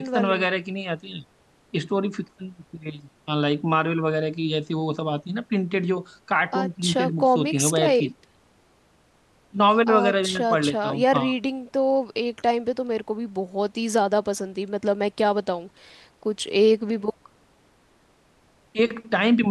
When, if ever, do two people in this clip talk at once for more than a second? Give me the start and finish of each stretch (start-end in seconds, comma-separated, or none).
6.6-8.1, 9.9-11.2